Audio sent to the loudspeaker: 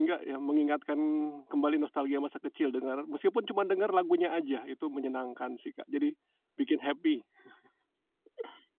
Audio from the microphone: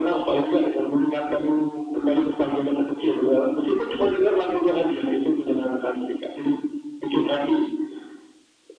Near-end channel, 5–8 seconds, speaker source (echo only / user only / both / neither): echo only